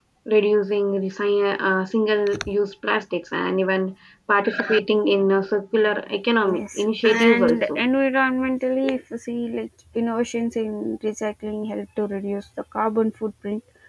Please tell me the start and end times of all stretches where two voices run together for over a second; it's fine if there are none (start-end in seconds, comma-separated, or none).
6.5-7.8